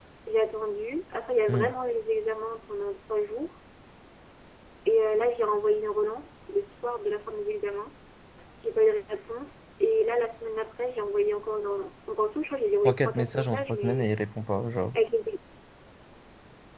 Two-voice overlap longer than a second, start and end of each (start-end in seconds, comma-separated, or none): 12.8-14.1